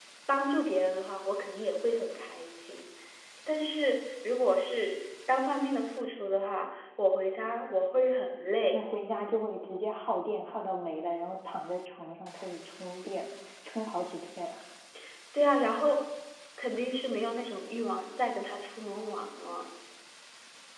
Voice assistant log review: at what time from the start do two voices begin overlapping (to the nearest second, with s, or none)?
none